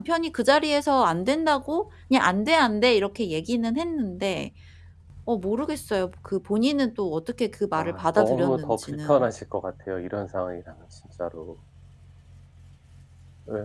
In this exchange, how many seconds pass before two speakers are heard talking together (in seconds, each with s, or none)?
7.8 s